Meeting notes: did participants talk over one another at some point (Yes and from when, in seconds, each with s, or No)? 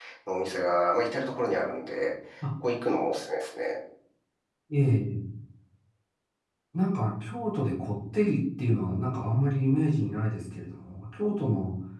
No